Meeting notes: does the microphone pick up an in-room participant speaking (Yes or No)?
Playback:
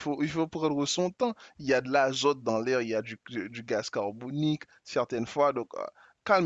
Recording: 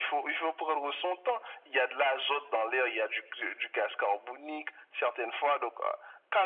No